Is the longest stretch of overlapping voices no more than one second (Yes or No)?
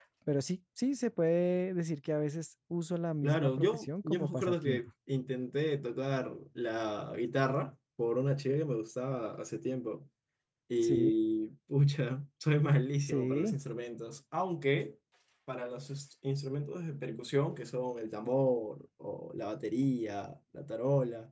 No